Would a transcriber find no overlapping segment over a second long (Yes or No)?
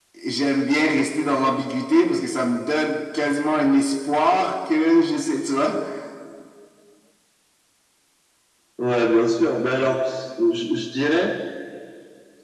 Yes